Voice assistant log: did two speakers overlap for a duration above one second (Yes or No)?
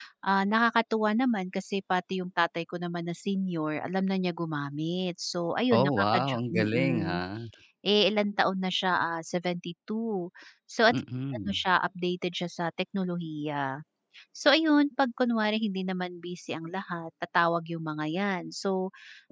Yes